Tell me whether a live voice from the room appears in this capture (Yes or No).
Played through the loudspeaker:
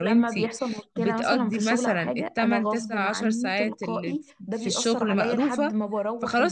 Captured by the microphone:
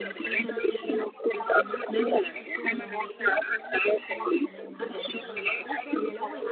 Yes